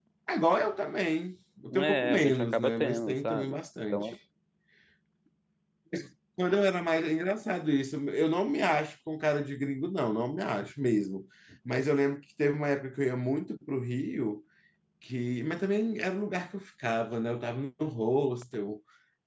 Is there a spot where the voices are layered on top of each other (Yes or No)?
Yes